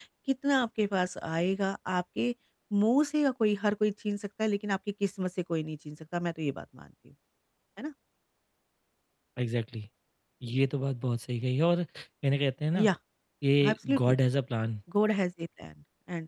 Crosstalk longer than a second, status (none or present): none